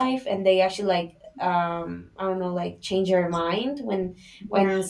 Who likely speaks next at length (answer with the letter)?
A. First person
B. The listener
A